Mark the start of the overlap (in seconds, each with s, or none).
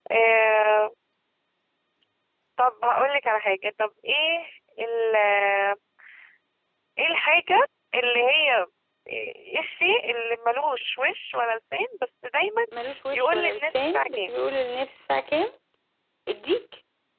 13.1 s